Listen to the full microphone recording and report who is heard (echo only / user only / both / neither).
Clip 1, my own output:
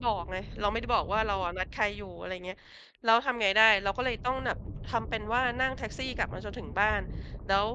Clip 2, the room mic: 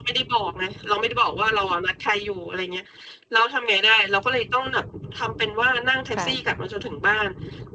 both